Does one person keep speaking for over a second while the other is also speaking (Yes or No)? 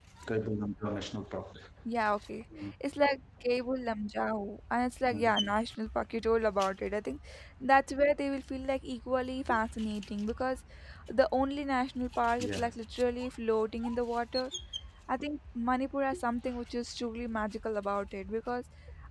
No